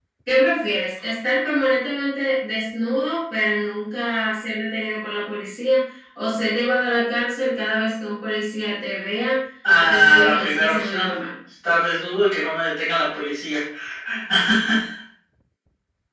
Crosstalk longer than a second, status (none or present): present